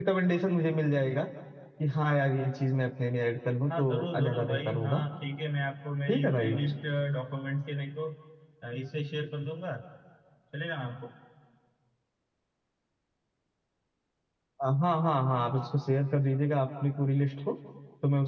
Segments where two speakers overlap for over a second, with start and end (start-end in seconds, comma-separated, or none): 3.7-5.0